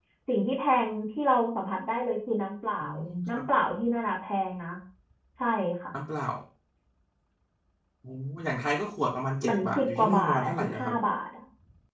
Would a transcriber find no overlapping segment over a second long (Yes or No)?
No